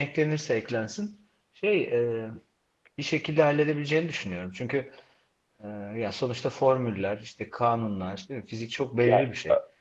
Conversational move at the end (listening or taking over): taking over